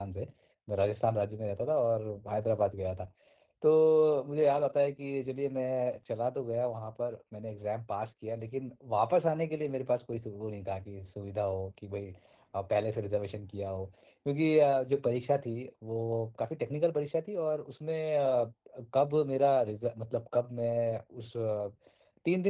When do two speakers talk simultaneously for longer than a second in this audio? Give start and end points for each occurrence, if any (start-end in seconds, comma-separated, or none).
none